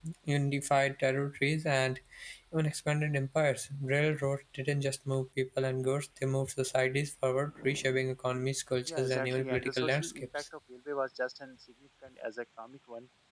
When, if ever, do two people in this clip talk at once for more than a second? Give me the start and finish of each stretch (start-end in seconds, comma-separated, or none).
8.9-10.4